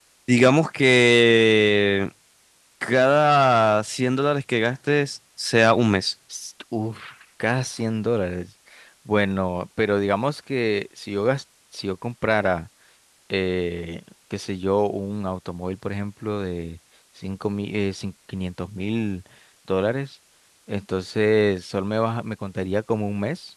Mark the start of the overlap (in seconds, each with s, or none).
none